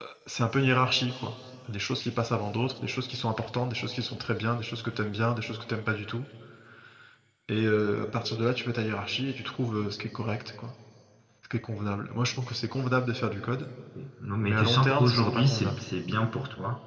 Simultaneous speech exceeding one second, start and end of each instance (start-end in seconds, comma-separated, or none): 14.4-15.8